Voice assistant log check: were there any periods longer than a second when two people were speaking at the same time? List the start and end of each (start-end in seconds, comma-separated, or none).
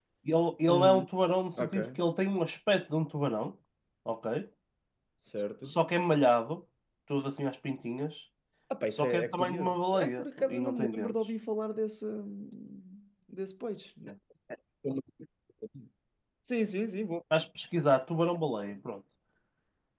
9.0-11.1